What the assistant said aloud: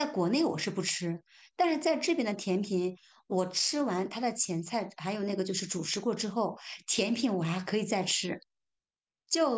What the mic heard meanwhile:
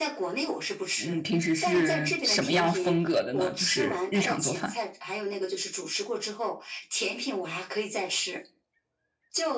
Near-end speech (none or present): present